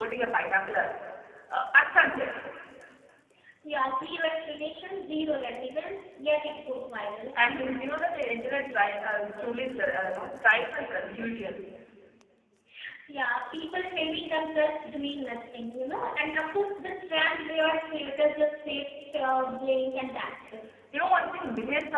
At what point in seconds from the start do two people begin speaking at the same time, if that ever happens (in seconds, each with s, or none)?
none